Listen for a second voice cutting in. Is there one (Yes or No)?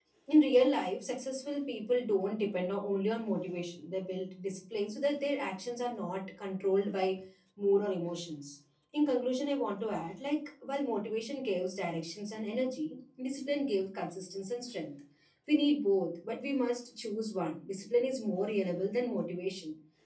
No